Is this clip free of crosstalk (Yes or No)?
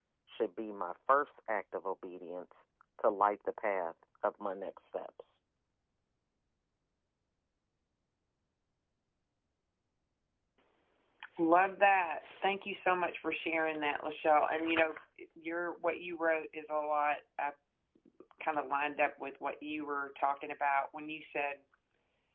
Yes